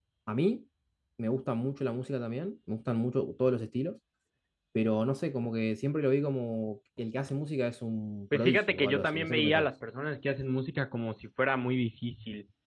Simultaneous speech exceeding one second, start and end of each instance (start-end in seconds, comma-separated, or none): 8.3-9.7